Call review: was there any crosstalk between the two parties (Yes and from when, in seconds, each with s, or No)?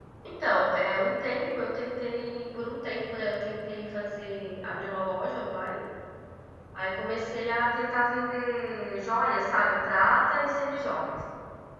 No